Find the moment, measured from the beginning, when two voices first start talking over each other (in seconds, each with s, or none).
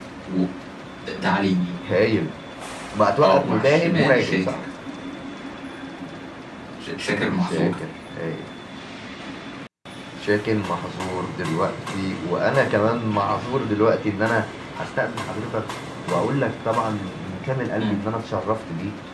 3.2 s